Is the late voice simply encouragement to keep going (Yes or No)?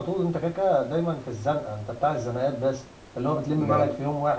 Yes